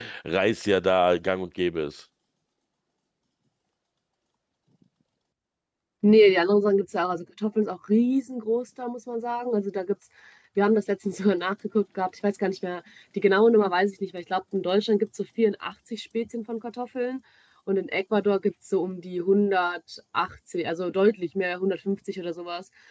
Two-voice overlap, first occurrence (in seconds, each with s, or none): none